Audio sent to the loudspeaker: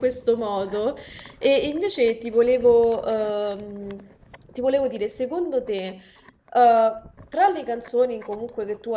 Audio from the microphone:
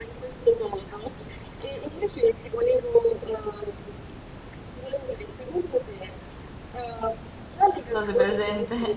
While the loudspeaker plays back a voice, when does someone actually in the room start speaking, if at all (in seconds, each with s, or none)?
7.9 s